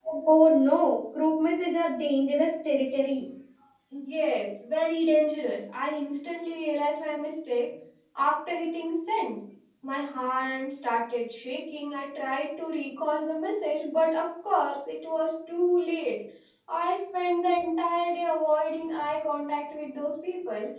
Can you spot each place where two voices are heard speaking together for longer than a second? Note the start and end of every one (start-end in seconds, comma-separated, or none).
none